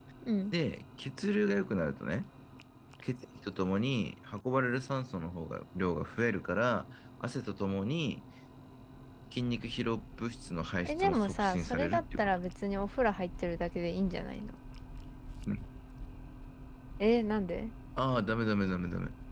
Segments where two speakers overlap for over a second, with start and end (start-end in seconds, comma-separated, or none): 10.8-12.3